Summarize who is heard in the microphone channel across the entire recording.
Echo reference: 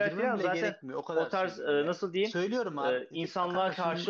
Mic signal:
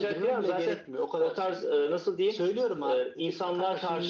echo only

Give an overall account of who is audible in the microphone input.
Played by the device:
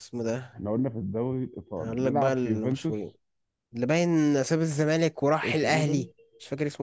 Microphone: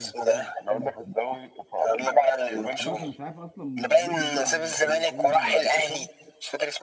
both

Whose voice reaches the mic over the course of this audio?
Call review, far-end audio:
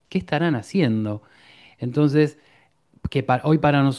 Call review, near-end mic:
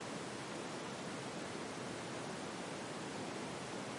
neither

